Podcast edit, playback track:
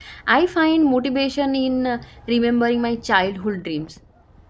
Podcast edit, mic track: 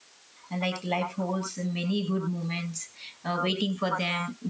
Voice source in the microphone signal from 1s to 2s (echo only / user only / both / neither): user only